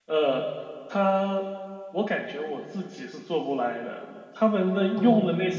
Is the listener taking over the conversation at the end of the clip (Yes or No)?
No